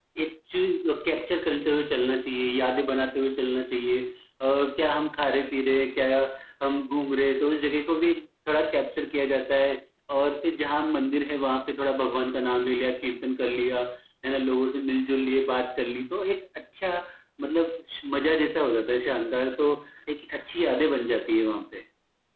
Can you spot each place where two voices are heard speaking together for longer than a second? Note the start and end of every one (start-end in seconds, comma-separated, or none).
none